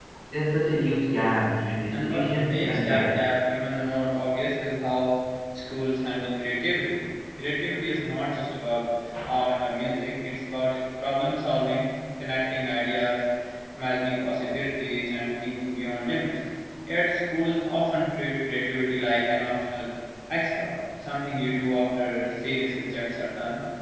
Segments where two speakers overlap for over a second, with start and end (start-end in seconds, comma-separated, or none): 1.9-3.2